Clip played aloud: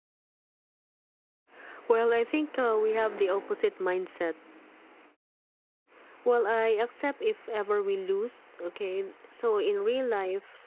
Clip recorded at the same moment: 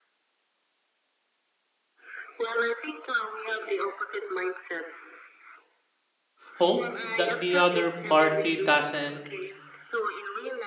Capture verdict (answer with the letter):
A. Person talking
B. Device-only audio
A